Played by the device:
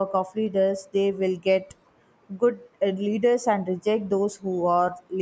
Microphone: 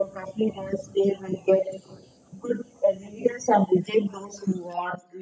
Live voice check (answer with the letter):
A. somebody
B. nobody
B